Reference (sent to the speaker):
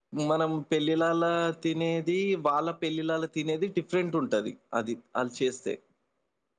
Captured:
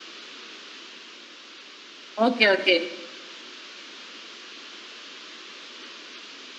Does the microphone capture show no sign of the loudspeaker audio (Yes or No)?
Yes